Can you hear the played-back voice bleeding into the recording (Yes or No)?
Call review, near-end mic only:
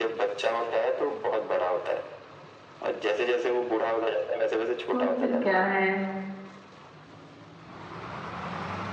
Yes